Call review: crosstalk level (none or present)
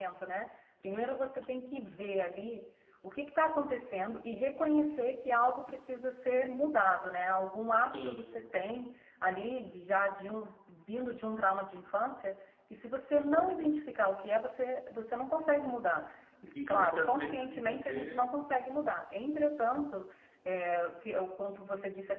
present